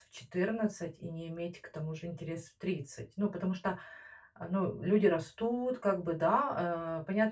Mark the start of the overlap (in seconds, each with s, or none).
none